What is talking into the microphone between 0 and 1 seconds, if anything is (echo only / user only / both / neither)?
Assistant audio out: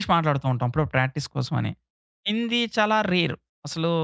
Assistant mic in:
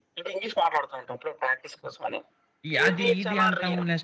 echo only